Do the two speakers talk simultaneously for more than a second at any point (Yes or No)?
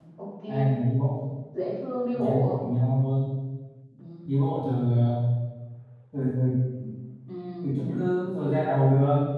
No